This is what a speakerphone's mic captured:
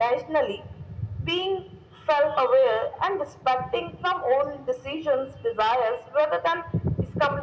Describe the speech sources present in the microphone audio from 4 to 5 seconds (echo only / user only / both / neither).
echo only